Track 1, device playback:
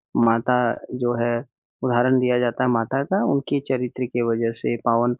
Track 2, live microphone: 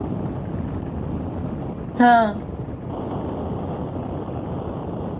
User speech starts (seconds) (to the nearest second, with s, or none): 2 s